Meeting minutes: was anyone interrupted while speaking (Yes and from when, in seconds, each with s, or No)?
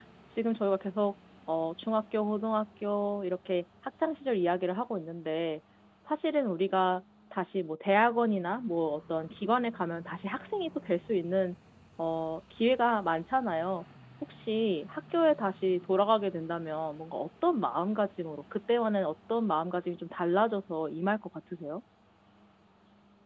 No